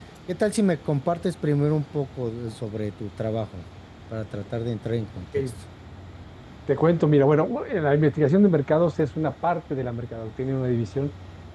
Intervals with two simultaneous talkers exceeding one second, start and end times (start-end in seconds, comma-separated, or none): none